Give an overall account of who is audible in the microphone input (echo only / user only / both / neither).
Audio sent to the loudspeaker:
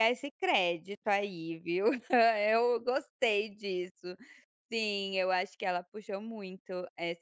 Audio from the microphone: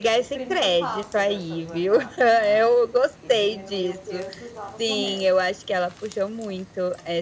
both